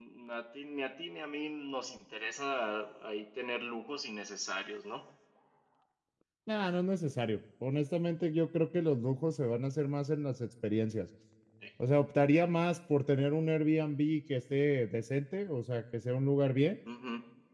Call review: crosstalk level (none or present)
none